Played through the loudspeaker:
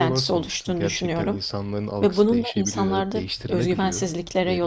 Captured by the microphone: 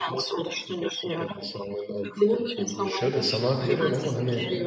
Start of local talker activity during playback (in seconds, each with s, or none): 2.8 s